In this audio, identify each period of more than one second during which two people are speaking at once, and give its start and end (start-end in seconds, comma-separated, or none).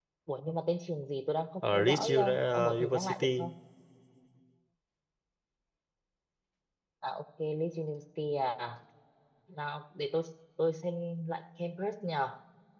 1.7-3.5